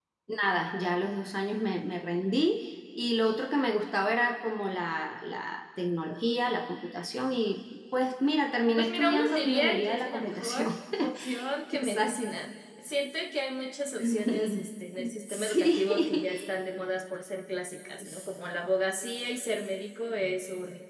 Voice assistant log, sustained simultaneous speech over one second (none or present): present